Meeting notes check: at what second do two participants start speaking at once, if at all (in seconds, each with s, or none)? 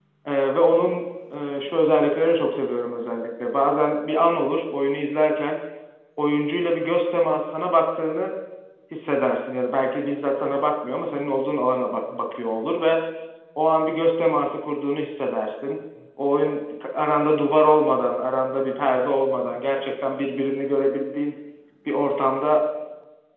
none